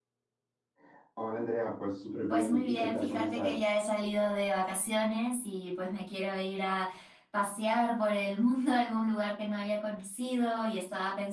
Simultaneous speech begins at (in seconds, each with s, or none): 2.3 s